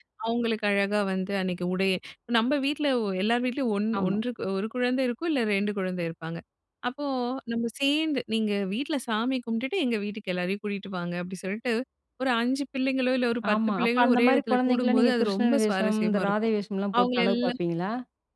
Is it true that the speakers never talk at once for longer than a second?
No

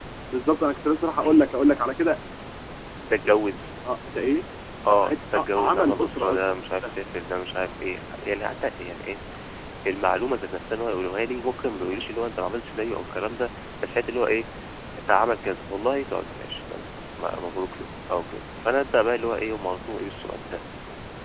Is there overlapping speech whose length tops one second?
Yes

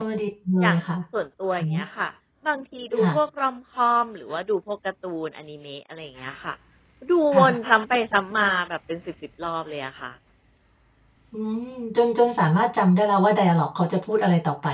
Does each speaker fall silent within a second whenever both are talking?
Yes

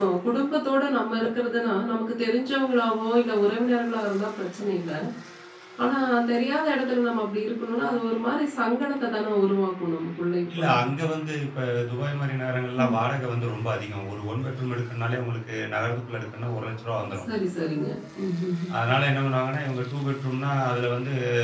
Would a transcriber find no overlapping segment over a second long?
Yes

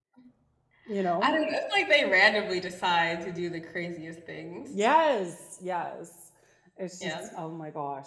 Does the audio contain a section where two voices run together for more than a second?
No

